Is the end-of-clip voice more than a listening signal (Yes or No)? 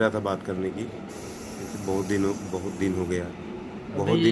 No